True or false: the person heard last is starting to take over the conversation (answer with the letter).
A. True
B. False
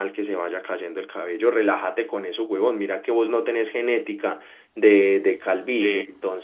B